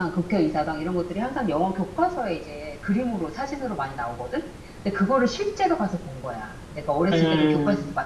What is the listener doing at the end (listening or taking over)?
listening